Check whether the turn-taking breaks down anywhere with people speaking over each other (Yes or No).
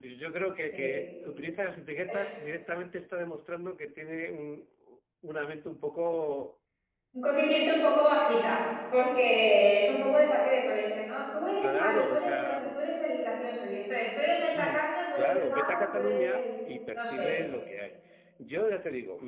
Yes